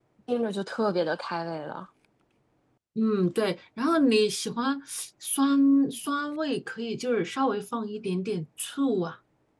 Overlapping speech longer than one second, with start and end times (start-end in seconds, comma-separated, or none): none